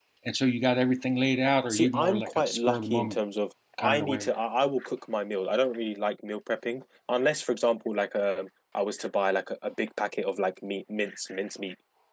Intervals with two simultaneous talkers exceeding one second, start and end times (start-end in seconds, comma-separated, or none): 1.7-3.2